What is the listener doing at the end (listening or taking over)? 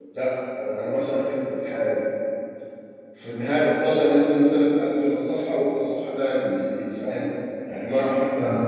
listening